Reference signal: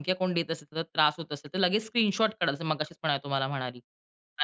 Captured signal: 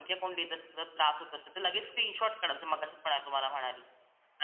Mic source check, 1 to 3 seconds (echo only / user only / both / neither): echo only